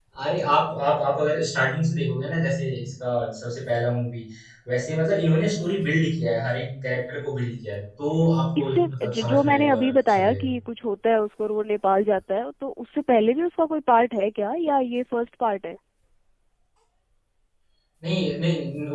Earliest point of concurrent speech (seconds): 8.6 s

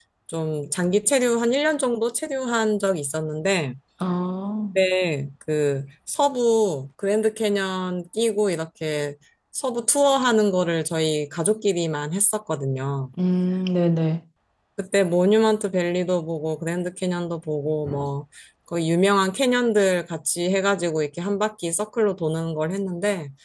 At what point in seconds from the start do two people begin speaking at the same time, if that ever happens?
none

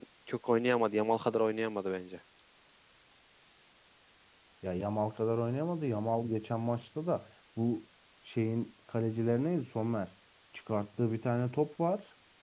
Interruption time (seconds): none

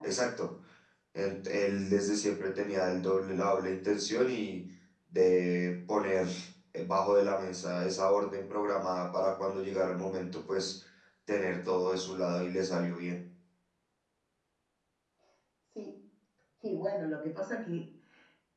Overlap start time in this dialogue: none

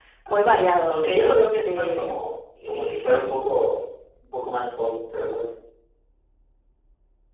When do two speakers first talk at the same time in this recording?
0.9 s

